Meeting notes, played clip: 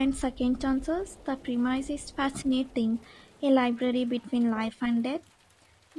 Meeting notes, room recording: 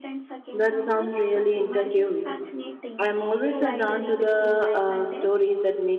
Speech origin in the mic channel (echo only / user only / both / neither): both